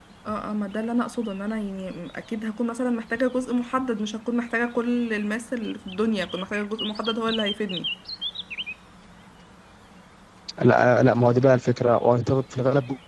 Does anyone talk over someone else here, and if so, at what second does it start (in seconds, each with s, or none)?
none